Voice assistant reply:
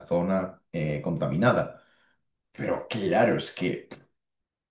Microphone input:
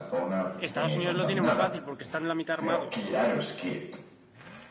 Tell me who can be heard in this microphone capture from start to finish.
both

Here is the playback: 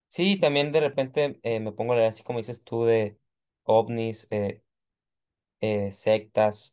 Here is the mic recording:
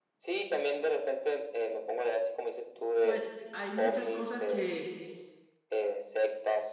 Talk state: both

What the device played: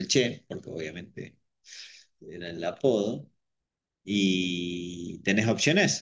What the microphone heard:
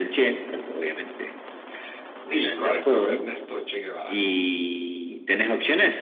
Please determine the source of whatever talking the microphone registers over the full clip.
both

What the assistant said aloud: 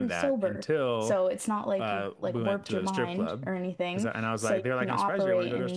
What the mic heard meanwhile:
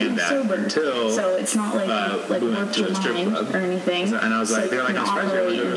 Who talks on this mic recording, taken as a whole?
echo only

